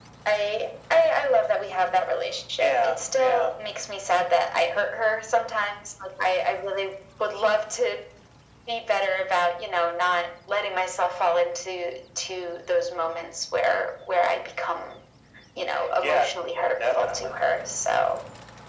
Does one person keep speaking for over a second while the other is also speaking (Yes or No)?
Yes